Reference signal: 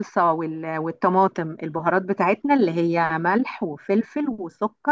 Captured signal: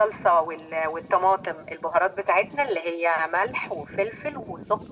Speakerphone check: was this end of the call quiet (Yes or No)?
Yes